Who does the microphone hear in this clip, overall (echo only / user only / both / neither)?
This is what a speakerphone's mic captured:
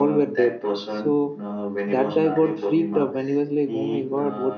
both